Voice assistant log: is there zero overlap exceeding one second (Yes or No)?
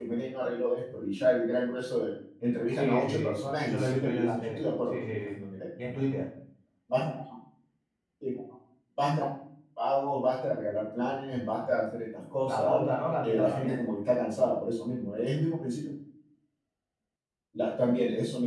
No